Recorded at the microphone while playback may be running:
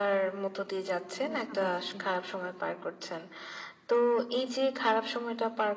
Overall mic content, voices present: both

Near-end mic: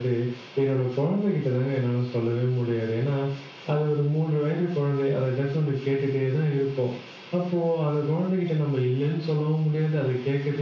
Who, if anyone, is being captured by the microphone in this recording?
echo only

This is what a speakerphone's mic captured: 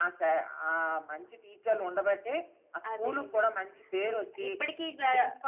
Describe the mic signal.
both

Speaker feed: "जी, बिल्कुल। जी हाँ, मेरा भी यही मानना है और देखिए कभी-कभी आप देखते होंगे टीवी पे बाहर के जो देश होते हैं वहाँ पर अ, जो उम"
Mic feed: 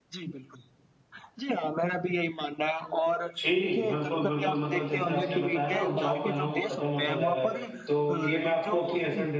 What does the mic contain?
both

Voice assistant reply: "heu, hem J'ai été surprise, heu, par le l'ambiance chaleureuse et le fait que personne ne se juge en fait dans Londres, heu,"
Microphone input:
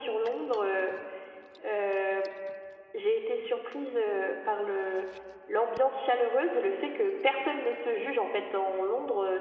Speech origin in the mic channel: echo only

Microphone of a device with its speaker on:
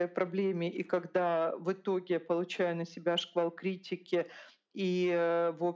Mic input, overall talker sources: echo only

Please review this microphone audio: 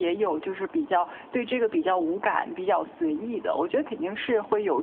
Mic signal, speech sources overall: echo only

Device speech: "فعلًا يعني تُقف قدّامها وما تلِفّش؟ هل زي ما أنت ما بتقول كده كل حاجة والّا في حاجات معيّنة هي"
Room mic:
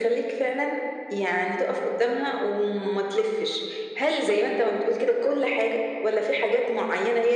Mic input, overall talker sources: echo only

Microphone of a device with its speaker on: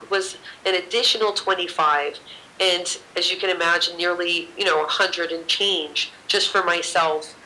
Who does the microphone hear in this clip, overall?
echo only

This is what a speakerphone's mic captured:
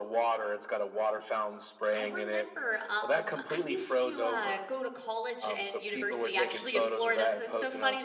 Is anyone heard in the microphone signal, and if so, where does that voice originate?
both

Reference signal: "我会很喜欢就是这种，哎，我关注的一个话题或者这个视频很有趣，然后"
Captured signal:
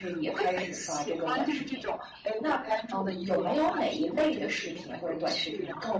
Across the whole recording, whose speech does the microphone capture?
both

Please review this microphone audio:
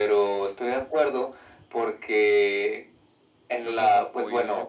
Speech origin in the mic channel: both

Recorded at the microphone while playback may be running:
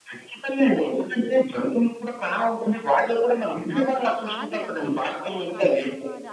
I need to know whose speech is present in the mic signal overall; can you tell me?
both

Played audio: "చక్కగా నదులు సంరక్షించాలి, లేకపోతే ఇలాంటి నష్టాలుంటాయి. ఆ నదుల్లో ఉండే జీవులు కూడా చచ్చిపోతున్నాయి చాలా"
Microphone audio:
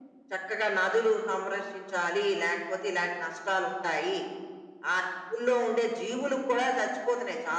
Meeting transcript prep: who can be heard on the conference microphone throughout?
echo only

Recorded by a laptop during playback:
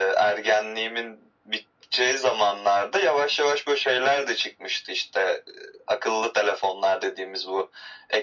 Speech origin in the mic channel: echo only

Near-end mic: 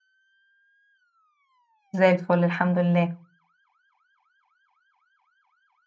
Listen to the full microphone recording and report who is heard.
user only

